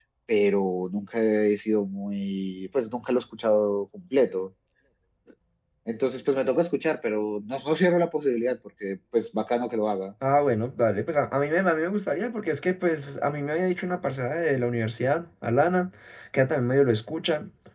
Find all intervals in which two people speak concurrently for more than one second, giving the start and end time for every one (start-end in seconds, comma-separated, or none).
none